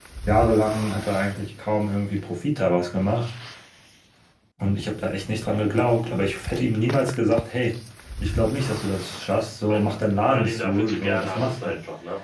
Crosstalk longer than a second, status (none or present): present